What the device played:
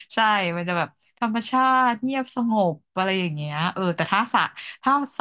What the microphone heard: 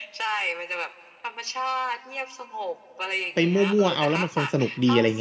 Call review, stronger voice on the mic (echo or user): user